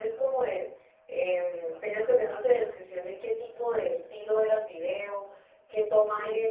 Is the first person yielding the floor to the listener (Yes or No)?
No